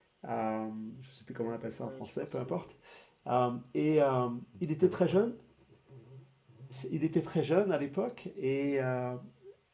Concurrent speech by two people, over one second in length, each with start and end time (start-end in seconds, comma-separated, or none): 1.4-2.6